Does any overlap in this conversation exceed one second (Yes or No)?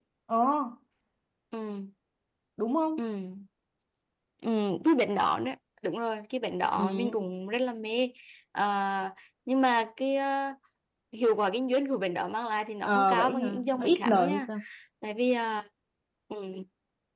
Yes